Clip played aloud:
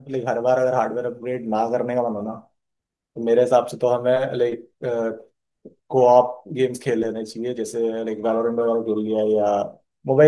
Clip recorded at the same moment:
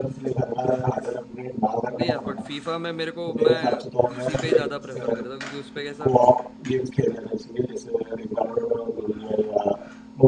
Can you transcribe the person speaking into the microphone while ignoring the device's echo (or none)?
नहीं यार बट फीफा में मेरे को मैं पीसी पे ही ज्यादा प्रेफर करता हूँ क्योंकि उस पे कैसा